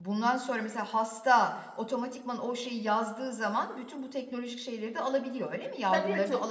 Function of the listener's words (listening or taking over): taking over